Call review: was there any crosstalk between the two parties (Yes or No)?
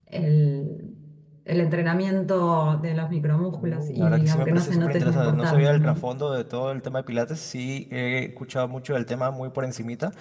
Yes